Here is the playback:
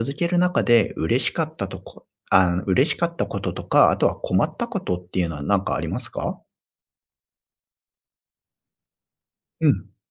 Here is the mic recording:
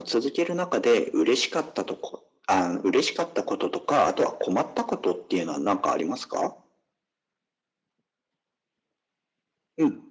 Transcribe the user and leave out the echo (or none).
none